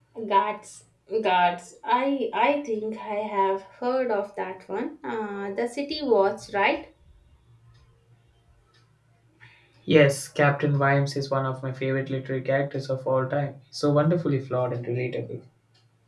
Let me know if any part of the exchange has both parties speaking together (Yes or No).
No